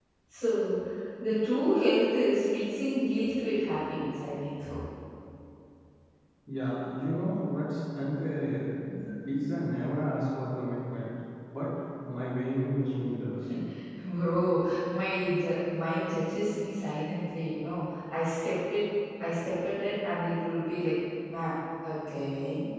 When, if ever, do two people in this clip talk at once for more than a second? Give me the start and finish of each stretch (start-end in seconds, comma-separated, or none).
none